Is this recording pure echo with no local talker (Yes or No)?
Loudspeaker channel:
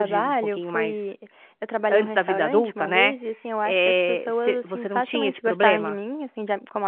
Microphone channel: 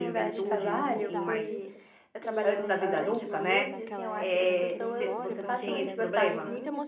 No